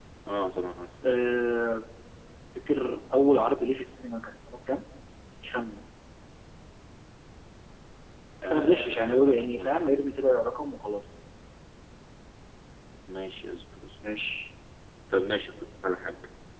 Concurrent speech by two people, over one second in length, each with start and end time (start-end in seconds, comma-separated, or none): 8.5-10.0